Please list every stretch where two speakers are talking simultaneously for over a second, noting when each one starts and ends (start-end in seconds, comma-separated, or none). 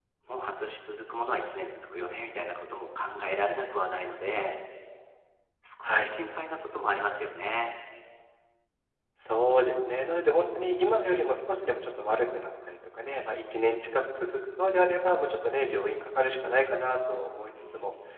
none